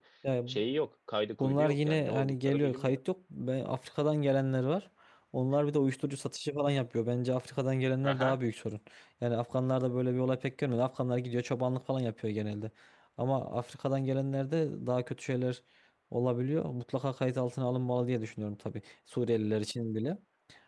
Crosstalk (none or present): present